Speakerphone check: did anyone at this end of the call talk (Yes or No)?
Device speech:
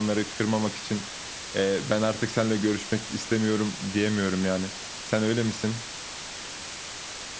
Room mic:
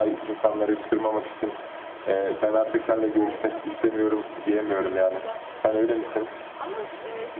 Yes